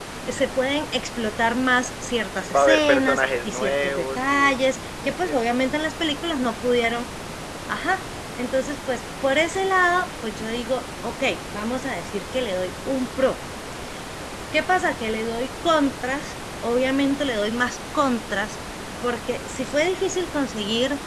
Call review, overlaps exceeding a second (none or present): present